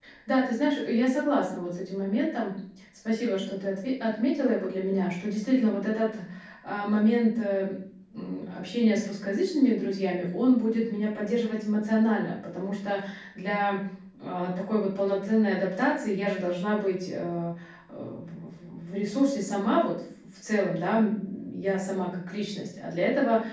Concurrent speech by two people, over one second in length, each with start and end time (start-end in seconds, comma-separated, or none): none